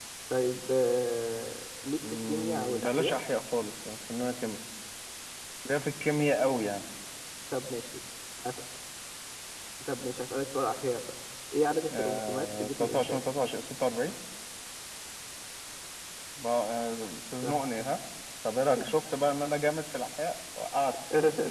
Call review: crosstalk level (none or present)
present